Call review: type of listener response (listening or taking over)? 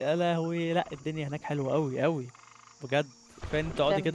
listening